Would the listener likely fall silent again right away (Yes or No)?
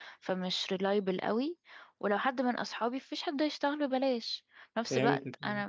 Yes